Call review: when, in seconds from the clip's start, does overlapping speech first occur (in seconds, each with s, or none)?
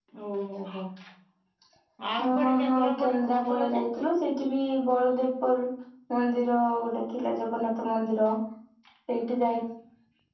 2.2 s